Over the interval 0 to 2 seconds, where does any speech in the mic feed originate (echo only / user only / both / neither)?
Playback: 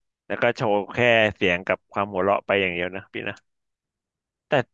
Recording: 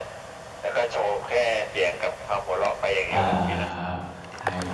echo only